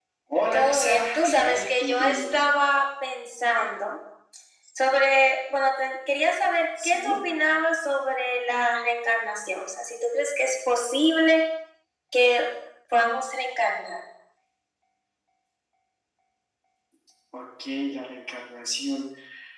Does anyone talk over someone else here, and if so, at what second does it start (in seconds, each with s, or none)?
0.5 s